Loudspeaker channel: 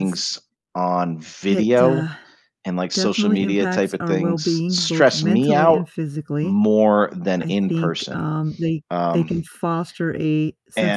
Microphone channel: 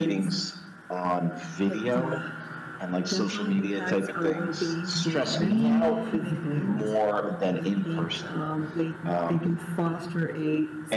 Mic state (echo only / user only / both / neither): both